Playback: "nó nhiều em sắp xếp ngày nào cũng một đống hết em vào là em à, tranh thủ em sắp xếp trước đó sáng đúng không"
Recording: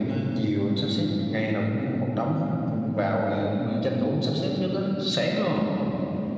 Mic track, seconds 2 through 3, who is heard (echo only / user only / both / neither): echo only